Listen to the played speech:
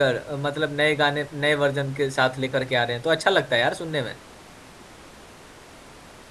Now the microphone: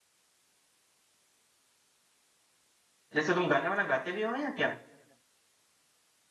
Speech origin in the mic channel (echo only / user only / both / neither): user only